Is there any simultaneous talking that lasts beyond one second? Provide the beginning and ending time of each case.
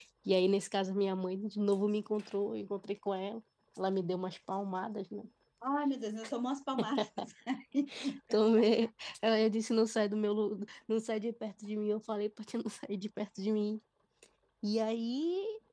none

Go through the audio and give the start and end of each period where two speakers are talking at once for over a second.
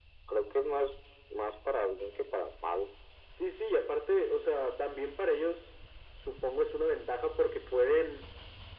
none

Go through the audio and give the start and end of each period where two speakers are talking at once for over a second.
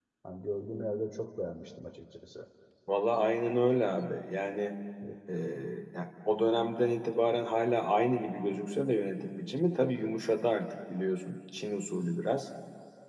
none

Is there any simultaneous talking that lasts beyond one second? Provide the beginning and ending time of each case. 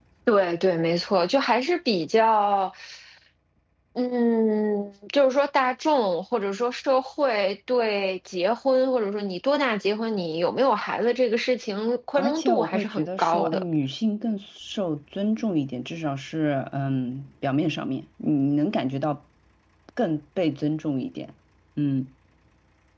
12.2-13.6

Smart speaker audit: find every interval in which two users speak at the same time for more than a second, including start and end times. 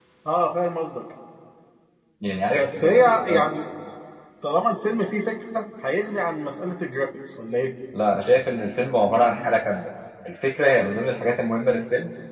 2.3-3.5

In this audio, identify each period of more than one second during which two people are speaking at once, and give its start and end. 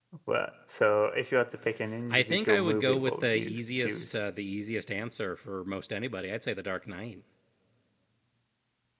2.1-4.2

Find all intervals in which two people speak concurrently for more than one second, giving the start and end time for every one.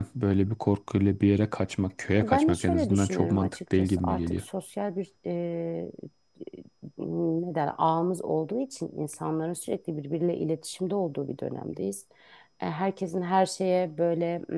2.2-4.4

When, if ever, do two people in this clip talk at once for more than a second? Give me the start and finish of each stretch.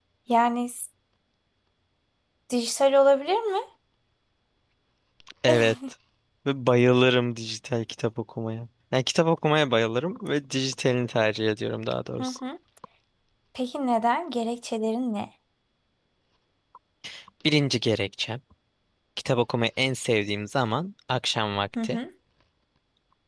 none

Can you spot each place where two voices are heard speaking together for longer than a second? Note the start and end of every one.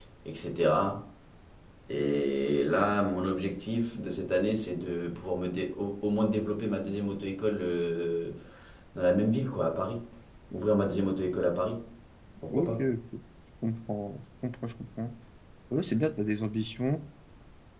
none

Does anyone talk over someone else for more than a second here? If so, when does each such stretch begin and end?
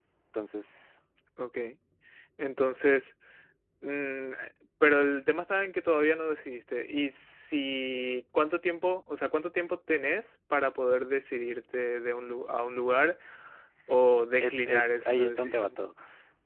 14.4-15.8

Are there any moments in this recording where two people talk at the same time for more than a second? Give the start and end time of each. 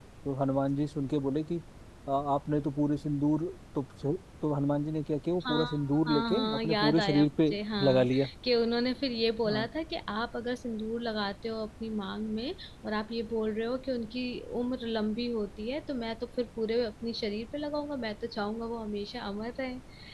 6.1-7.3

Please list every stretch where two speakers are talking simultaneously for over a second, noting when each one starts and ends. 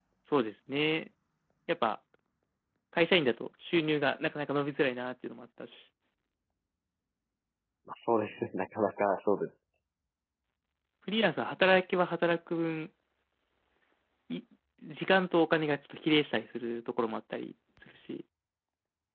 none

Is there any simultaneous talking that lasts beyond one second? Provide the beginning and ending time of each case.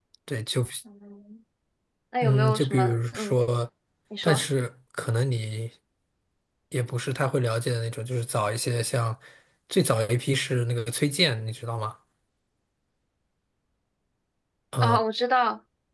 2.2-3.4

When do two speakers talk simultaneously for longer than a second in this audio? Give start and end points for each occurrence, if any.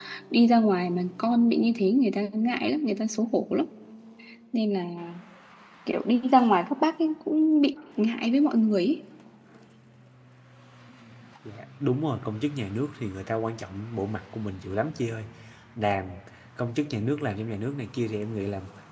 none

